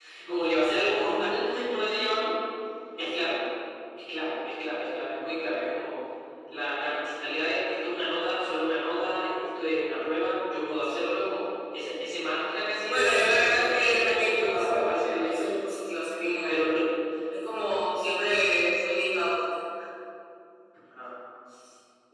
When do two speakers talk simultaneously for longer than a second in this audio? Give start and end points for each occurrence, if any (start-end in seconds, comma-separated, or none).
12.9-15.6